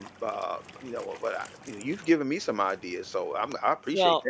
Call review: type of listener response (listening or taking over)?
taking over